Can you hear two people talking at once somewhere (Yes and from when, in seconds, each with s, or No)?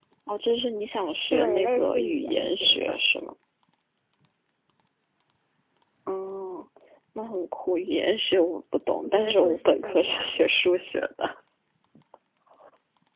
Yes, from 1.3 s